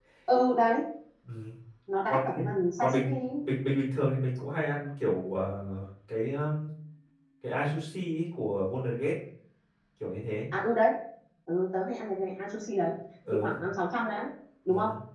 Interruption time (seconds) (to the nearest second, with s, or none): 2 s